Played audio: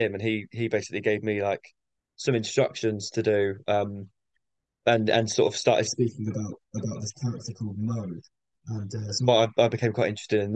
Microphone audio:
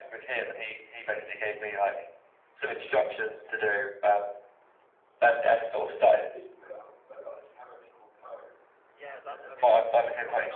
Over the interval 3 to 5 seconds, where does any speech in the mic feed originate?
echo only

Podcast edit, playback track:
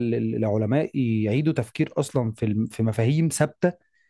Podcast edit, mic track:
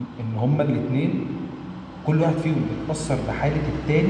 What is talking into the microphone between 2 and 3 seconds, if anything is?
user only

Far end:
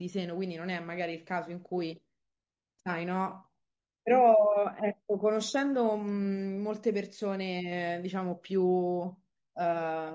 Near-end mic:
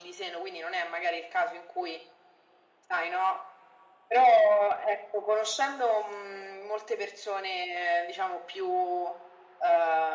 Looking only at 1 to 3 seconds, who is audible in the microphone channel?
echo only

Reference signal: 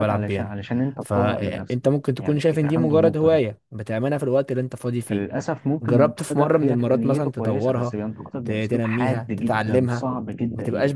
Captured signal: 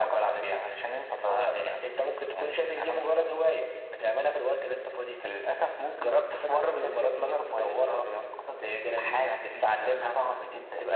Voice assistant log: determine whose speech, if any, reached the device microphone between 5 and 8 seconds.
echo only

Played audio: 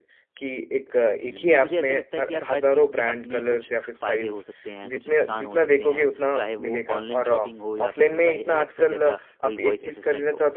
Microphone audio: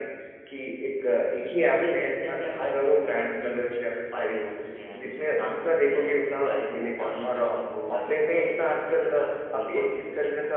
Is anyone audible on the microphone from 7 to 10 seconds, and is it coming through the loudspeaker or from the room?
echo only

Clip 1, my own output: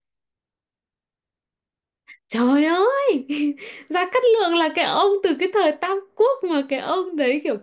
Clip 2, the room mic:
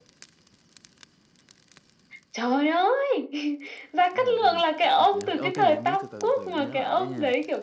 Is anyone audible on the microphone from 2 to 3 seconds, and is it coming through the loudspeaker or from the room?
echo only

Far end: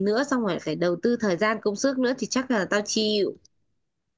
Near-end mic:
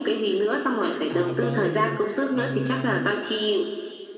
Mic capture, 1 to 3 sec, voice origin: both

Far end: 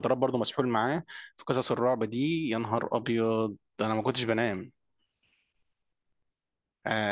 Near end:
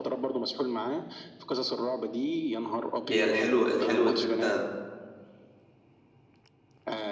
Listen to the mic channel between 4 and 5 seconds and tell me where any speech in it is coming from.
both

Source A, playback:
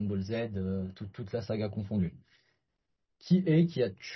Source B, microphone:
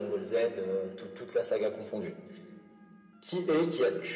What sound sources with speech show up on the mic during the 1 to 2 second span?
echo only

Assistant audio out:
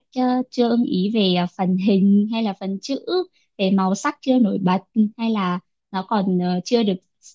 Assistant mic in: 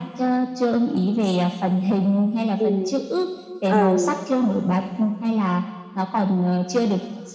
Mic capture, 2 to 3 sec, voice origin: both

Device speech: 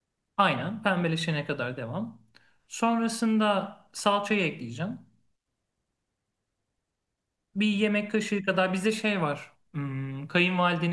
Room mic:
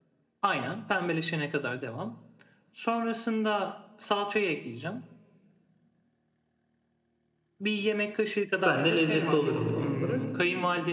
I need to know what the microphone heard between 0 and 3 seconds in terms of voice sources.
echo only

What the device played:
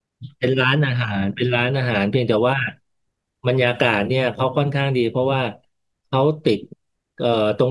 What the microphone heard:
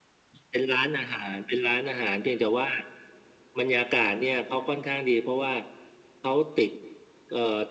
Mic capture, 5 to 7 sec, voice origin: echo only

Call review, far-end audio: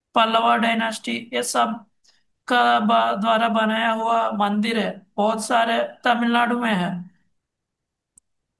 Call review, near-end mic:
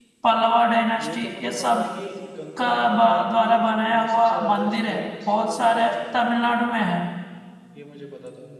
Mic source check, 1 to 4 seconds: both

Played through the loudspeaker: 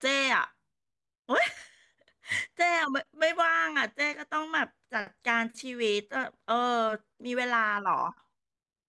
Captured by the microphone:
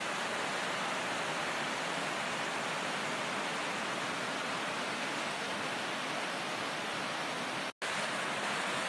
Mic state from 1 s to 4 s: neither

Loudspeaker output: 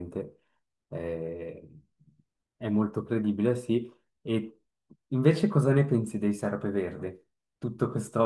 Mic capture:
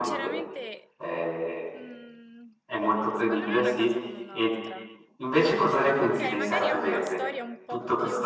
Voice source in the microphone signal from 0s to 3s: both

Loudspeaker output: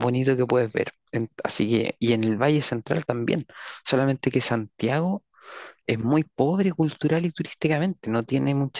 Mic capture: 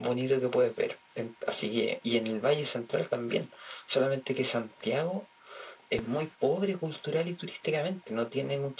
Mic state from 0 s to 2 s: echo only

